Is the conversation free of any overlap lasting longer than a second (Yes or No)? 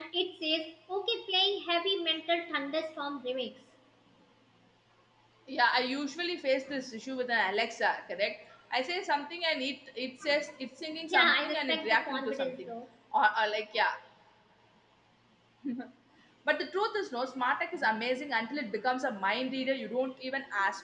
No